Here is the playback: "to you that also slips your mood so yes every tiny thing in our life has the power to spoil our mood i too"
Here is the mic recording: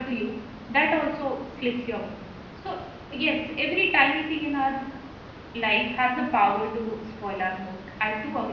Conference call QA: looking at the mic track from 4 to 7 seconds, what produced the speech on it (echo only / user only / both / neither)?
echo only